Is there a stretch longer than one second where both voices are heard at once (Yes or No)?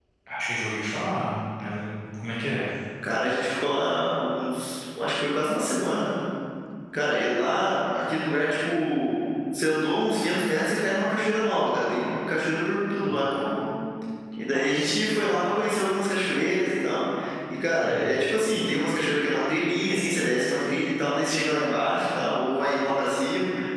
No